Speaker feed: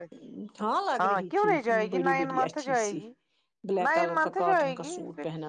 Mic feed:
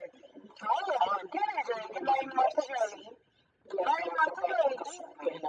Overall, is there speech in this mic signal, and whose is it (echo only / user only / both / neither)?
echo only